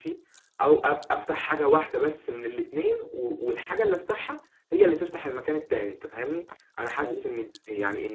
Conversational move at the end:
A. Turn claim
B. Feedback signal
B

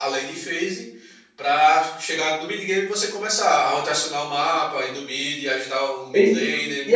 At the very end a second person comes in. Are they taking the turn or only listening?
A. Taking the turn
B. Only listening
A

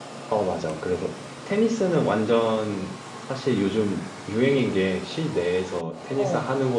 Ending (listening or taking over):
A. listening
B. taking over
A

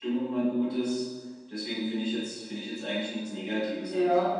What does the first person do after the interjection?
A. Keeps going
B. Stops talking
B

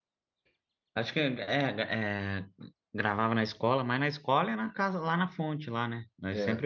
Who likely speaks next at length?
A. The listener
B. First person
A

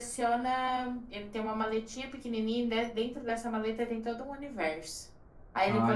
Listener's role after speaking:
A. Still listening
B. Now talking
A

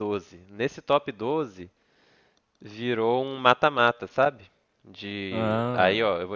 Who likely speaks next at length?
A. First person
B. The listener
A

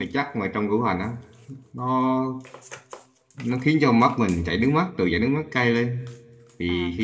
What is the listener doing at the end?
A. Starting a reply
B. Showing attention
B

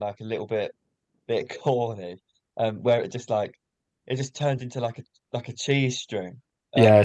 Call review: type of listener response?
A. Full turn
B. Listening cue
B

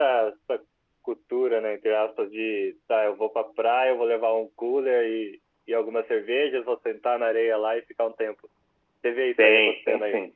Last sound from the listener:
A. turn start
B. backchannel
A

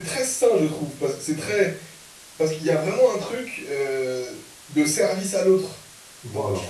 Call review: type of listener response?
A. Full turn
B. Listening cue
B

